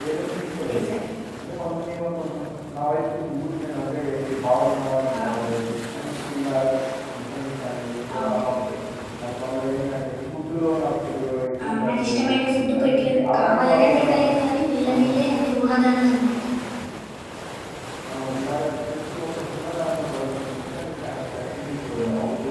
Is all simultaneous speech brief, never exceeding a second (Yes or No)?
No